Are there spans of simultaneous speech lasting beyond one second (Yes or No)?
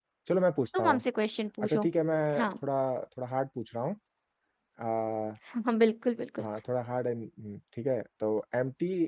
No